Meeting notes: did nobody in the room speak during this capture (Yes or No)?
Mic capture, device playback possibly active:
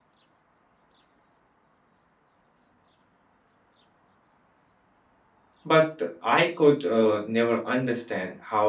No